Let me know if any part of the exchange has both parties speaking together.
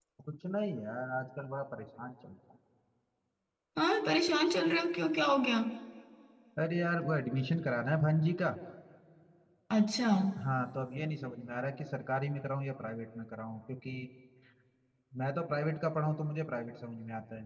No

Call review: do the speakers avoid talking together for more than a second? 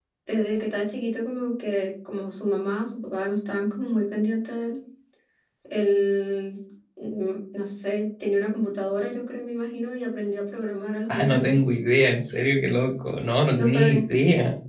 Yes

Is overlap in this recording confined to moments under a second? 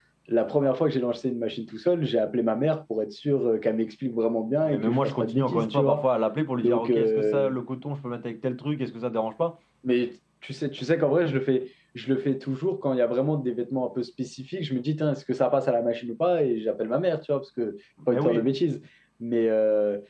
No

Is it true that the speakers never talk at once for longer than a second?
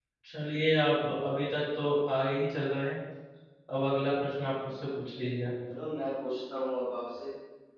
Yes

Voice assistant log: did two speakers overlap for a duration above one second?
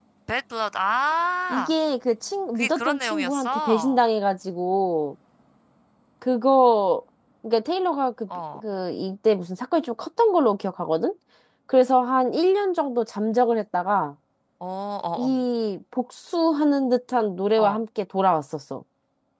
Yes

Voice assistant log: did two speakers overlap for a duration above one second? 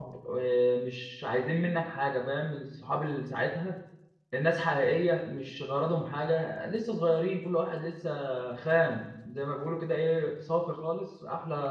No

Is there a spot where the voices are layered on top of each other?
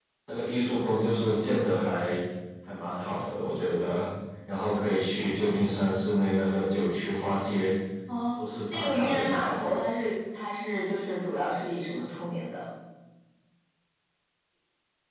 Yes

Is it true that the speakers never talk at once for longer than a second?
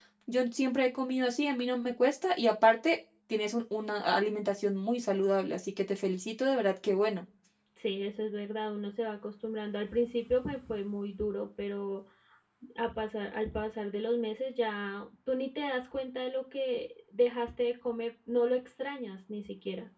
Yes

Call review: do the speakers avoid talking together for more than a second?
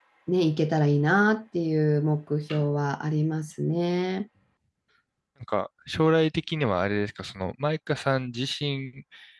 Yes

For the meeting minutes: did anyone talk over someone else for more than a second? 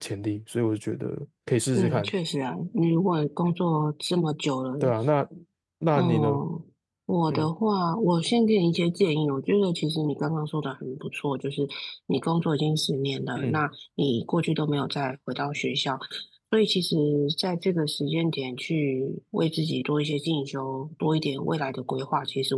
No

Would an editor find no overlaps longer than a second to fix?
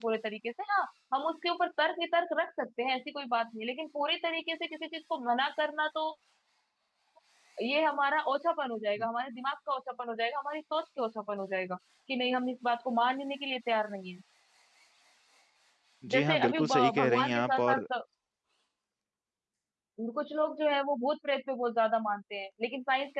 No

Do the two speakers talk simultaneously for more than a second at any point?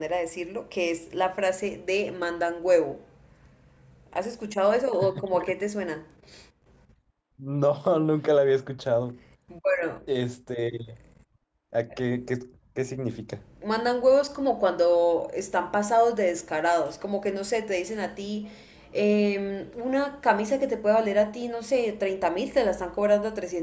No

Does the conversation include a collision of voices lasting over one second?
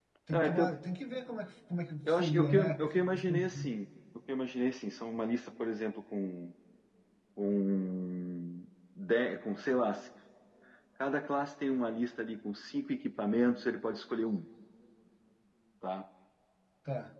Yes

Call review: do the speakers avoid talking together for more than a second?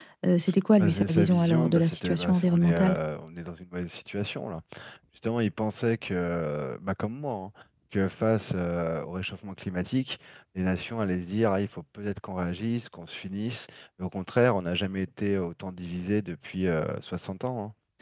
No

